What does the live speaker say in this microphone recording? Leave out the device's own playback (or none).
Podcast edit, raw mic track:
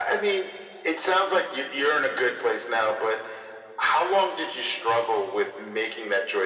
none